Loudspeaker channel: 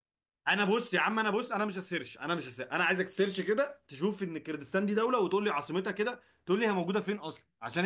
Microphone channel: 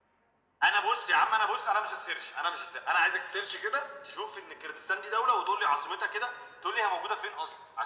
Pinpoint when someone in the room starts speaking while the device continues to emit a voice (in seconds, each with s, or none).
none